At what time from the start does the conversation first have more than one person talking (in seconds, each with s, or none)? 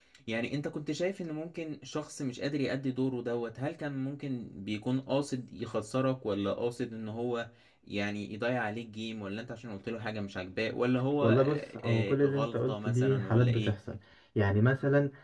11.2 s